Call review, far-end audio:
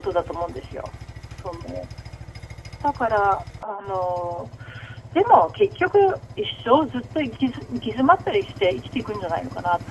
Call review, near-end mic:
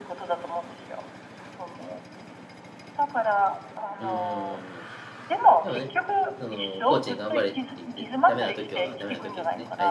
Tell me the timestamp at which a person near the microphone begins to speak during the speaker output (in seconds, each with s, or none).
4.0 s